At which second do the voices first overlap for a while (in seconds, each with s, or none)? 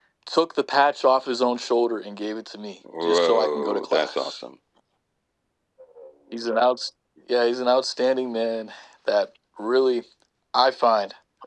2.8 s